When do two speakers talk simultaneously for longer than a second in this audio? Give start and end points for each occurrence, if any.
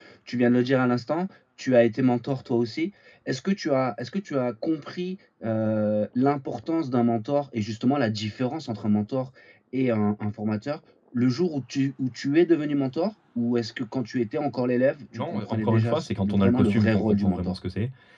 15.2-17.5

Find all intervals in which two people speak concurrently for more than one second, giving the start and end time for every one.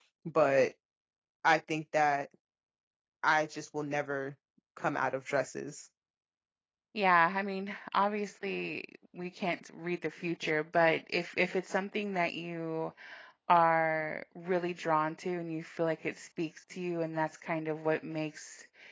none

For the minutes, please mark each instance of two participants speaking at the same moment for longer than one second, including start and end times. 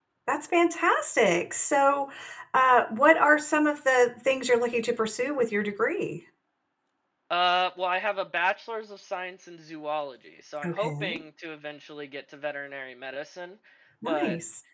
none

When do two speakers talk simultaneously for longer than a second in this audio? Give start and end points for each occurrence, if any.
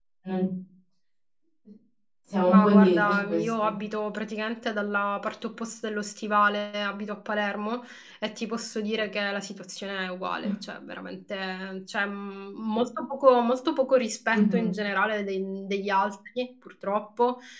2.5-3.7

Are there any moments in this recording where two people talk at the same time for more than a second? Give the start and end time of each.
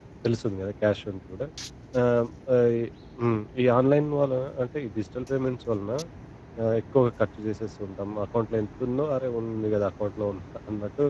none

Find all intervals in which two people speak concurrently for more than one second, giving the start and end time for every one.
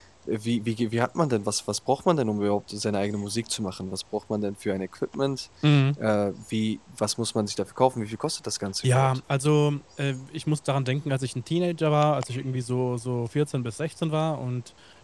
none

